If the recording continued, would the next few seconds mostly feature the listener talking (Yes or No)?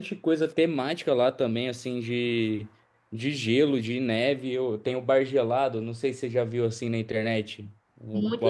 Yes